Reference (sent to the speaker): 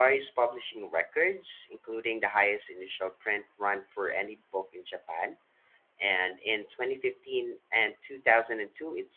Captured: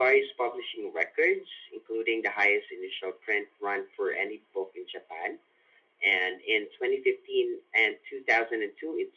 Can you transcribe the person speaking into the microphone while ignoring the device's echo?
none

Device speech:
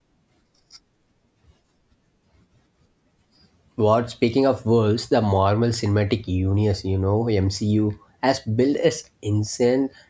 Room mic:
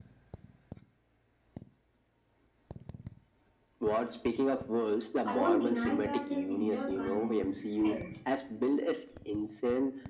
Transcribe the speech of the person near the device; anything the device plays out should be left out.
I won't deny that the Cinder can help,

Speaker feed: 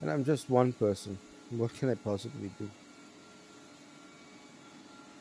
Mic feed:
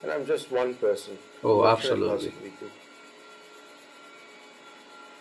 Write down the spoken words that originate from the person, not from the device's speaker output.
Oh, absolutely.

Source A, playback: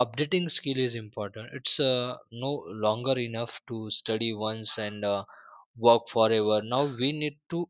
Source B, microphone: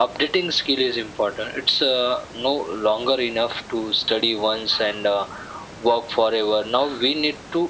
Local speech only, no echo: none

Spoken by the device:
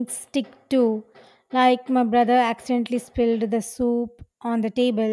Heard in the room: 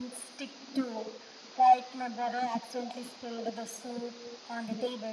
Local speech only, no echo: none

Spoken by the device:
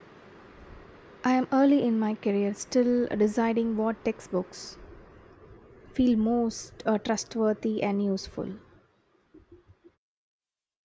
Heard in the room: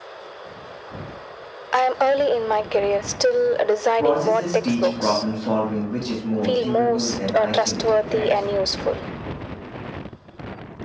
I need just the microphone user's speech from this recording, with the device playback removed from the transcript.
Processes teach problem solving, which is more durable than isolated facts.

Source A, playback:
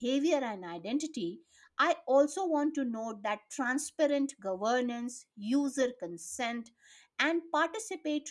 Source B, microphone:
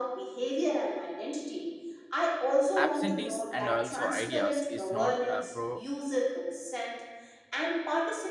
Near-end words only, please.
absentees and also ideas is not a pro-

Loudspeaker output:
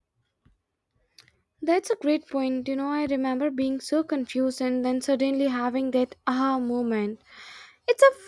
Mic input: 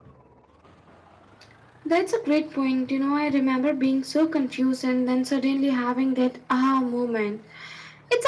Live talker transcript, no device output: none

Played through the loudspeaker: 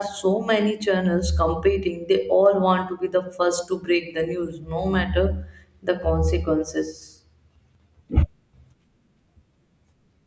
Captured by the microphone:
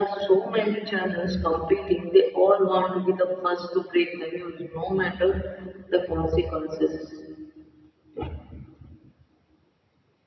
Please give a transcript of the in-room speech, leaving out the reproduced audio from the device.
none

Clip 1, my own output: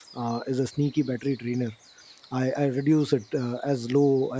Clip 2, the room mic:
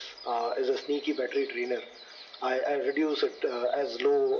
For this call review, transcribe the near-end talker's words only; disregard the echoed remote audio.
none

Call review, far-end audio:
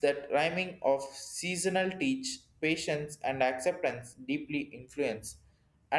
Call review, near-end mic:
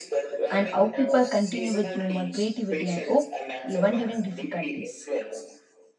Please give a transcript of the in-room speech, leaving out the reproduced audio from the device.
and how people continue with humor, creativity, and hope even during difficulties.

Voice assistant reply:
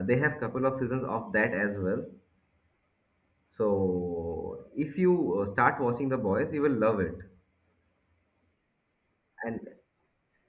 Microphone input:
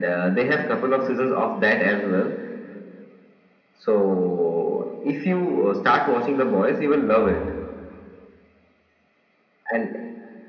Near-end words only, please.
What?

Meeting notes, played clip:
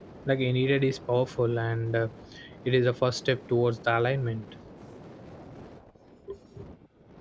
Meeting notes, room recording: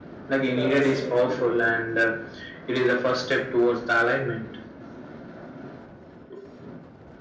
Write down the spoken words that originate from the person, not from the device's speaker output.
They arrive gently

